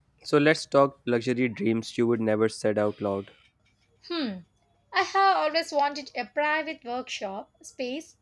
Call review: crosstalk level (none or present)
none